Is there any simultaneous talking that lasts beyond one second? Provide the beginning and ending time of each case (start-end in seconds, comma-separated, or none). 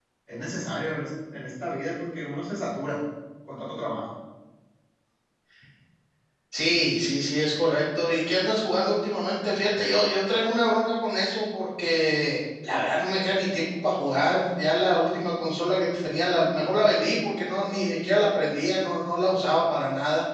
none